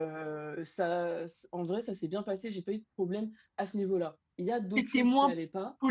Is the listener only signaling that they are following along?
No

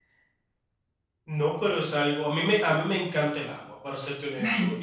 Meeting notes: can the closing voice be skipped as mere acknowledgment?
Yes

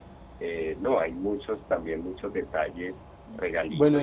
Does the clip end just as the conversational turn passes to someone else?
Yes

